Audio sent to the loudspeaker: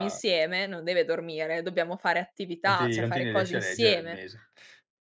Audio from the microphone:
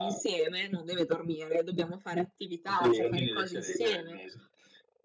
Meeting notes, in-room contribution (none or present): none